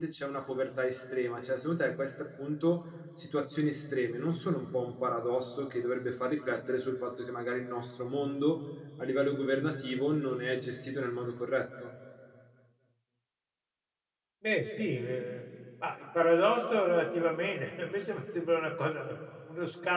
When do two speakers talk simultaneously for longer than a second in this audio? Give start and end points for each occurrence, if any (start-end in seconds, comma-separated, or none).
none